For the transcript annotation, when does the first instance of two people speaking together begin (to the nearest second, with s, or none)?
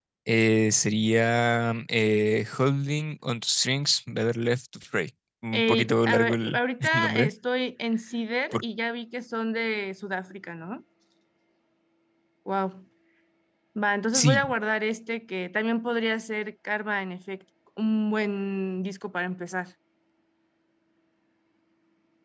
6 s